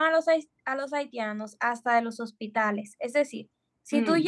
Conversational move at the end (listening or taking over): listening